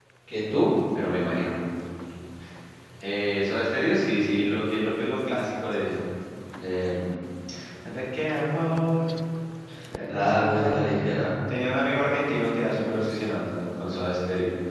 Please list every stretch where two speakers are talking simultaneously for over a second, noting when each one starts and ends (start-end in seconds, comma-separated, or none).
10.1-11.3